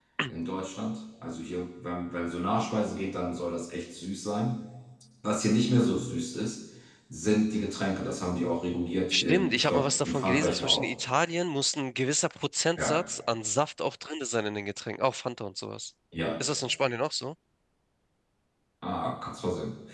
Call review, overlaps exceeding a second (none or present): present